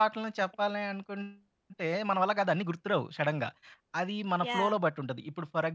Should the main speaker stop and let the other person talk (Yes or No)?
No